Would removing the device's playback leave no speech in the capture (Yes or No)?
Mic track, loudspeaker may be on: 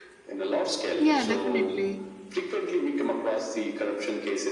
No